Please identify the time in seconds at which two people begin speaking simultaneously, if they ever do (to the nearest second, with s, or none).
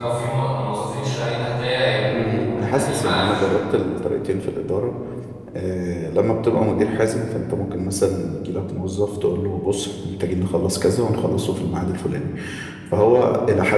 2 s